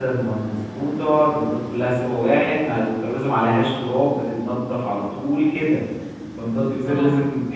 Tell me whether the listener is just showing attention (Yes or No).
Yes